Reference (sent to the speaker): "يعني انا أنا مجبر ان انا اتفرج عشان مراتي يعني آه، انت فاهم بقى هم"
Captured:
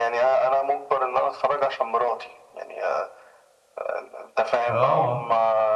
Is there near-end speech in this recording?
Yes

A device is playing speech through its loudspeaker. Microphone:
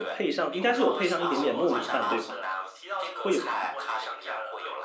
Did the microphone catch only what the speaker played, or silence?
No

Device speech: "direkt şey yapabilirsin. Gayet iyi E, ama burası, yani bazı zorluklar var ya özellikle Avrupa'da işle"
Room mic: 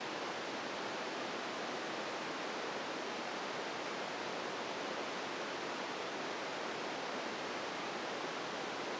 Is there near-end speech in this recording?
No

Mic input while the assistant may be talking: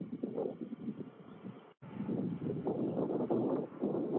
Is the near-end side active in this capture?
No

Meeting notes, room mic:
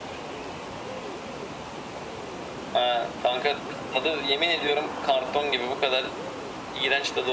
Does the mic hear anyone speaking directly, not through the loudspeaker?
No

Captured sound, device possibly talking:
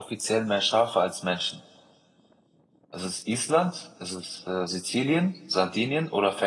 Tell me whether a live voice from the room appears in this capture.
Yes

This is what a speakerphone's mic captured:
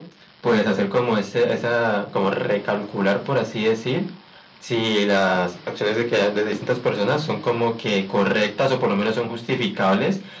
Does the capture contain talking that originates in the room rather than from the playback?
No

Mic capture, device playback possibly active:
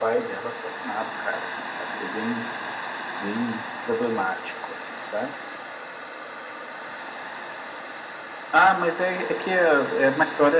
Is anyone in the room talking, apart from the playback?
No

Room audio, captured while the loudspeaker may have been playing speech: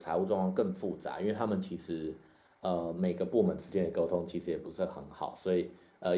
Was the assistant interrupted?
Yes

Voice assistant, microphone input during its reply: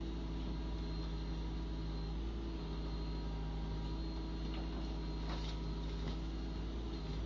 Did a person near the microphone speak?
No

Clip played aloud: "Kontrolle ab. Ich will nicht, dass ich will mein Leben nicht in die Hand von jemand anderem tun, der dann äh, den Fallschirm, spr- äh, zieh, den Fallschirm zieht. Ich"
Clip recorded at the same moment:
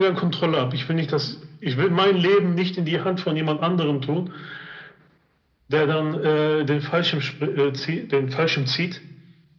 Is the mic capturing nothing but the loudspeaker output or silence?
Yes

